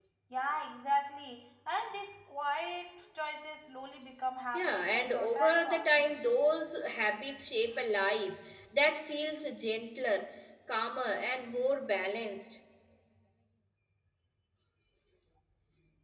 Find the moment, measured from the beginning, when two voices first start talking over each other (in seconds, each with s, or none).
4.5 s